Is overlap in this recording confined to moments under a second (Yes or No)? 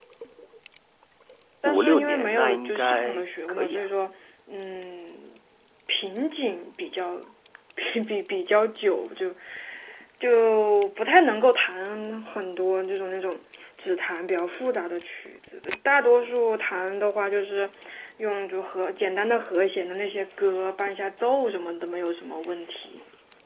No